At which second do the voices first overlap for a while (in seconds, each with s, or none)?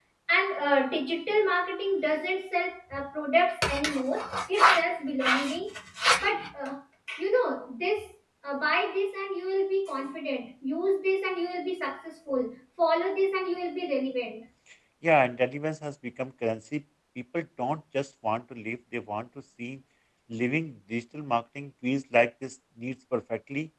none